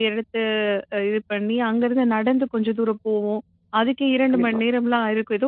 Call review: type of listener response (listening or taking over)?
listening